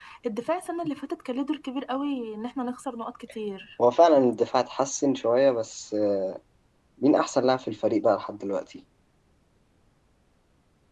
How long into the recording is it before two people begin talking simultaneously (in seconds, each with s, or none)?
none